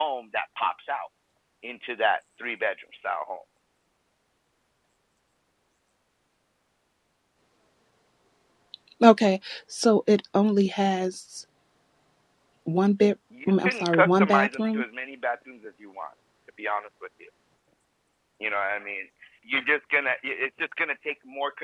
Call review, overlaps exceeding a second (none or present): present